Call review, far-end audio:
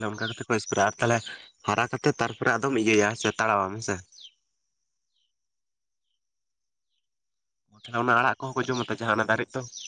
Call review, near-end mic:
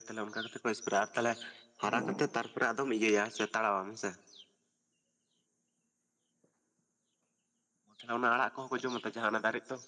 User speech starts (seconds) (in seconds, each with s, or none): 1.8 s